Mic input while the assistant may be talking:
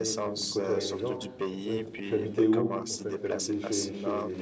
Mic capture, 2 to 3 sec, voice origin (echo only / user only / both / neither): both